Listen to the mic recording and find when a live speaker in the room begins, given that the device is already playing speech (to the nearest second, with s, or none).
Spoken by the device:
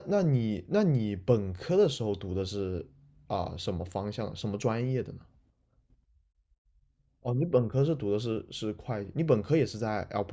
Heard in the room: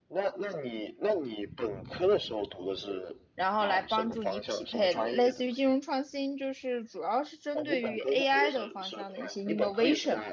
3 s